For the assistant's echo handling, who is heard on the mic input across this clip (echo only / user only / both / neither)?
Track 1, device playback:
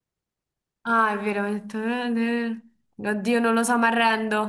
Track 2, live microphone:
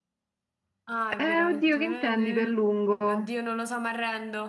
both